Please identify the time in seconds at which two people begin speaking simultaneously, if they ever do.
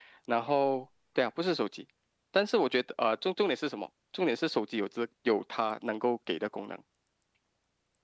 none

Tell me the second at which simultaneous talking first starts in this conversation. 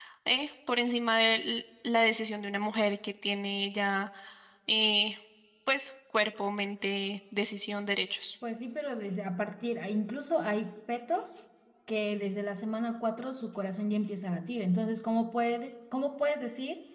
none

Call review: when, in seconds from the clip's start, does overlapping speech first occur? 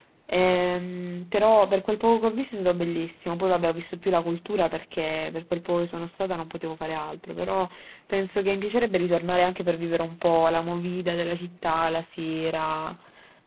none

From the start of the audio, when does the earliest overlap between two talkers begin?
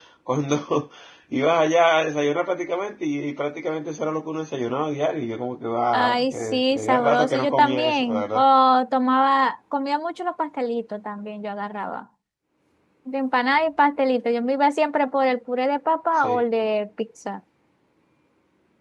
5.9 s

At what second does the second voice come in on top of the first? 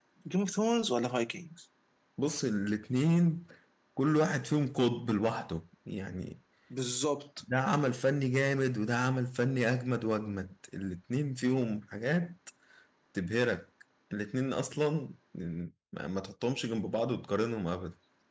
none

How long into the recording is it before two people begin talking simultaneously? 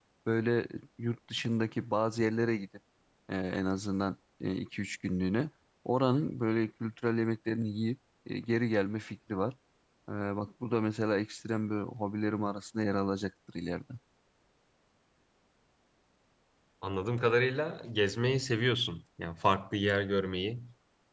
none

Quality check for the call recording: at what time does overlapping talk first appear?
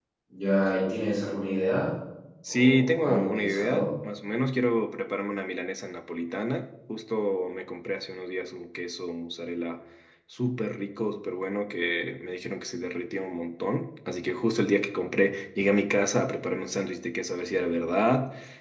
2.5 s

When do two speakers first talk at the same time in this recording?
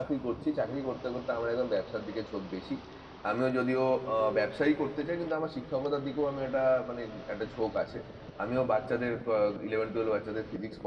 none

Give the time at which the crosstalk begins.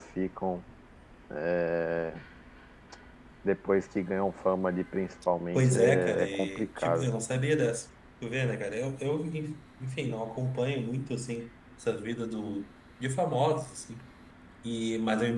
5.5 s

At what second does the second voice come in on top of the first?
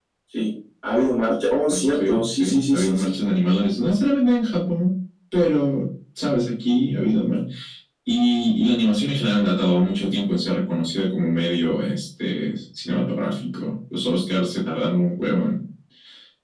1.7 s

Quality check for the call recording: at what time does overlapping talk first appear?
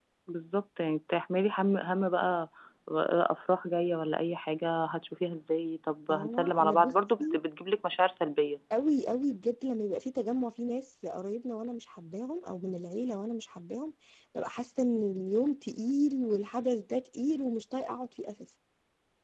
6.1 s

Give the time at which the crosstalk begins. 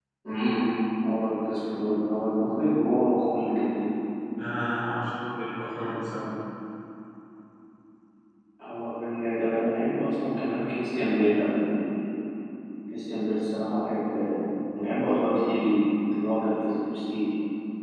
none

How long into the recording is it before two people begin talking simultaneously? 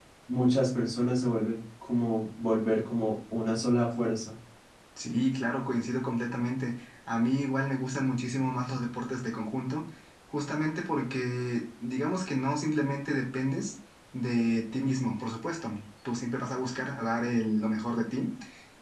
none

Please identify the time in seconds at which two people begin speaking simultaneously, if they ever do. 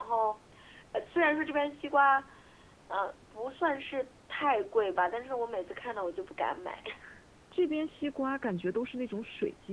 none

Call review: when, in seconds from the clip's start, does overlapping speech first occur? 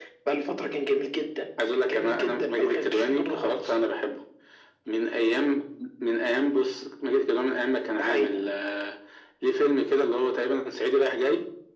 1.9 s

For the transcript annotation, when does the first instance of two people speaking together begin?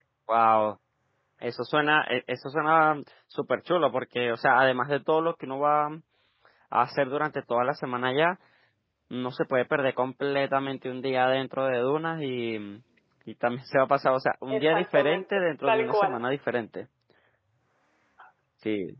14.5 s

